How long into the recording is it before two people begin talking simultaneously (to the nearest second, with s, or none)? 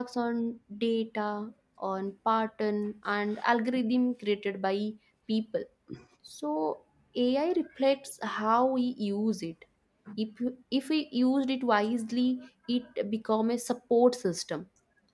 none